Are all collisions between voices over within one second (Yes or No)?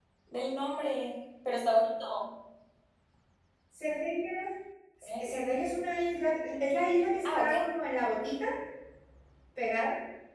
Yes